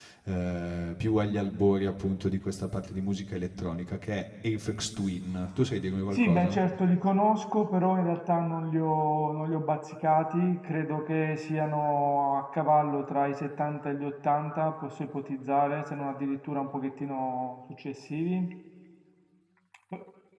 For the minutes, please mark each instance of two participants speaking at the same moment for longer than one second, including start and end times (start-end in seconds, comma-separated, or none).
none